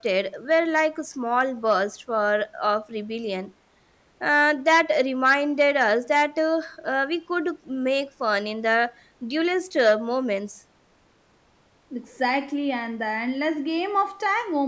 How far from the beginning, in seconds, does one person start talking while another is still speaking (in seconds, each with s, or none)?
none